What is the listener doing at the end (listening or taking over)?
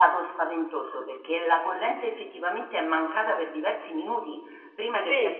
listening